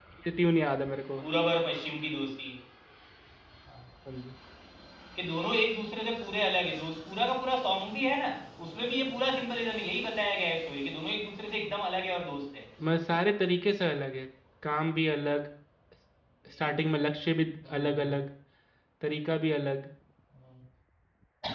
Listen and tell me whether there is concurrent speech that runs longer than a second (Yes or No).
No